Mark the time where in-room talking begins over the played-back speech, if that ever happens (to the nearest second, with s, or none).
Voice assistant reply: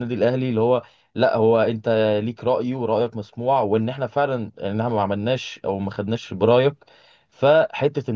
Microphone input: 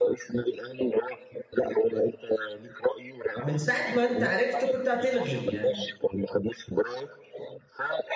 3 s